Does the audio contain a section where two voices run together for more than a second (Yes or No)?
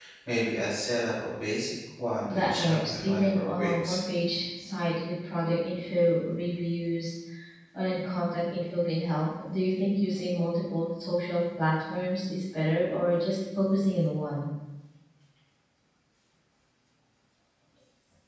Yes